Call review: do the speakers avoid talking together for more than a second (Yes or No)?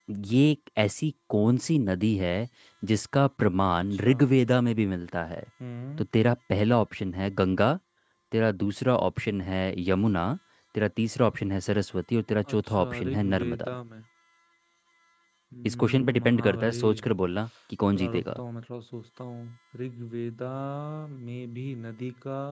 No